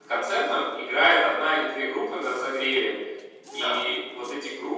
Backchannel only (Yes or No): Yes